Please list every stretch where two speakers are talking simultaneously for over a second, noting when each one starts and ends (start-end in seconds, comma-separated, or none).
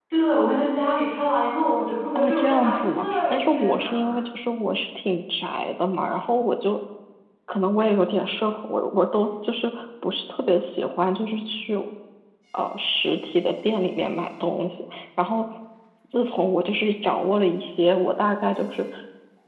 2.1-4.1